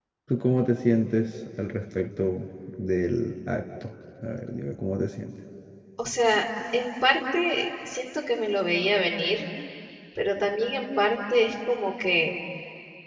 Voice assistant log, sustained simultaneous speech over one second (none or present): none